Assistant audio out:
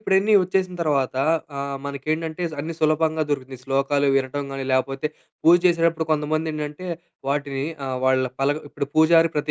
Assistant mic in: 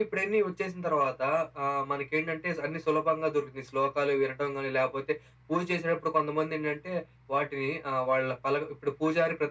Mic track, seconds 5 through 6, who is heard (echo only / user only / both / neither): echo only